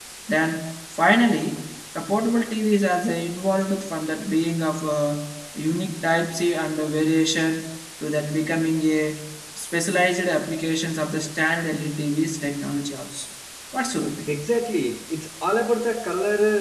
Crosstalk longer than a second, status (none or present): none